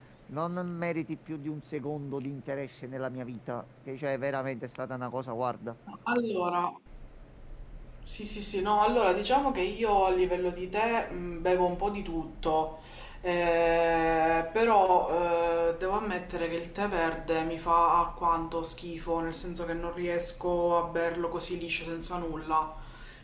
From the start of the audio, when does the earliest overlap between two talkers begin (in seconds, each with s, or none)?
none